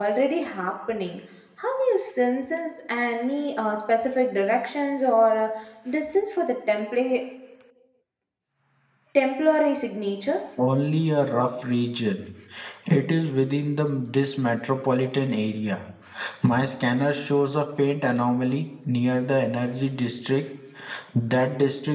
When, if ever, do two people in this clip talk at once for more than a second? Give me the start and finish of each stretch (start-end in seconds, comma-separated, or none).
none